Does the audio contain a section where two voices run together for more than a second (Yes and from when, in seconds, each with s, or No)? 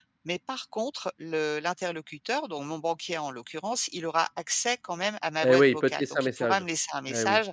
Yes, from 5.4 s